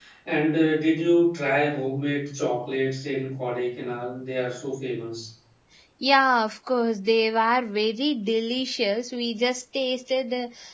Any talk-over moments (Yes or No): No